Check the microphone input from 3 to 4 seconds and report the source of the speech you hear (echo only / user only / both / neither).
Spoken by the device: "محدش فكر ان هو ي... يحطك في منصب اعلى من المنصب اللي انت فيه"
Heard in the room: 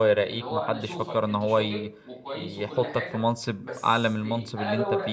both